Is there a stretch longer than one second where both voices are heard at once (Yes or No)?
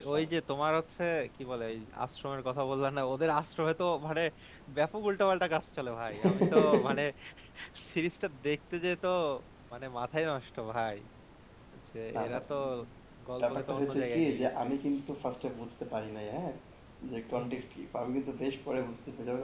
Yes